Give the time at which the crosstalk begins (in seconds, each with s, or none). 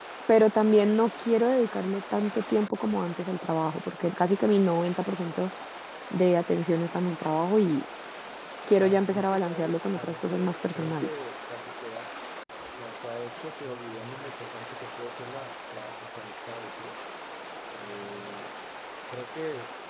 8.8 s